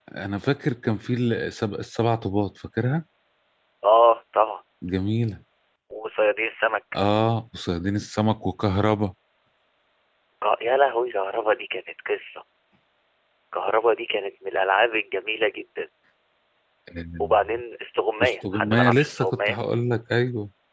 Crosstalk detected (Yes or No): Yes